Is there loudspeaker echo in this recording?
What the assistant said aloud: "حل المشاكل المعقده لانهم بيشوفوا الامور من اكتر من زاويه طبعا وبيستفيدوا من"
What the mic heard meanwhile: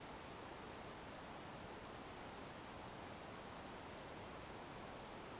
No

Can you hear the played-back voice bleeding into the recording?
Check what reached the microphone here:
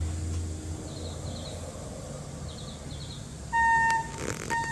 No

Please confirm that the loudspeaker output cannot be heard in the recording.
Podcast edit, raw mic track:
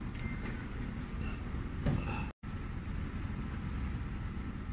Yes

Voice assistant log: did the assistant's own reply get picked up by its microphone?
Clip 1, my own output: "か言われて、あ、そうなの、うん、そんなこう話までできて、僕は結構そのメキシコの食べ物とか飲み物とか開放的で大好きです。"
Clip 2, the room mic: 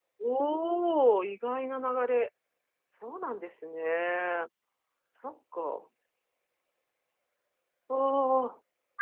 No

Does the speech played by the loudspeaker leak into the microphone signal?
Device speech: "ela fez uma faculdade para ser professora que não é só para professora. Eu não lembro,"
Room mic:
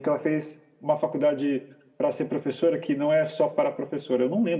Yes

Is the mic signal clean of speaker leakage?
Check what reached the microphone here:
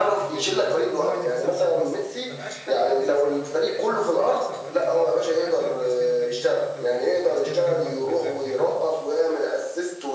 No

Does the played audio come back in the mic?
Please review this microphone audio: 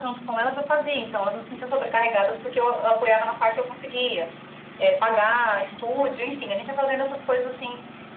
Yes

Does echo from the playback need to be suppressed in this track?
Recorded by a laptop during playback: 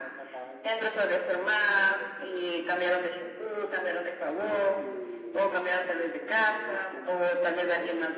Yes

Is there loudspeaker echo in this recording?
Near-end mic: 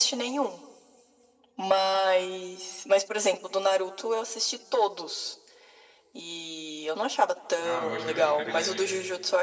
Yes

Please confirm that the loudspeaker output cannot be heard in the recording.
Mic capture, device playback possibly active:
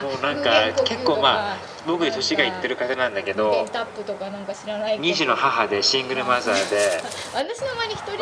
No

